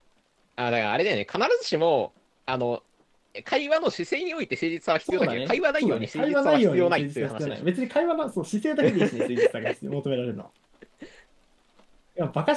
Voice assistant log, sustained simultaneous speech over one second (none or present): present